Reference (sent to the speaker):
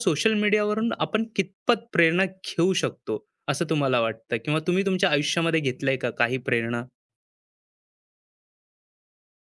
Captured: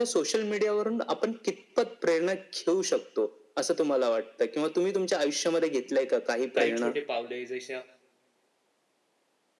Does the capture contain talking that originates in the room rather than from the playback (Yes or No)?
Yes